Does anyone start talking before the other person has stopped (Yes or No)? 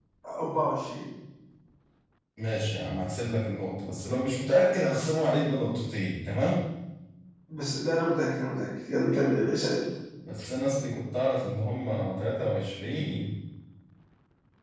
No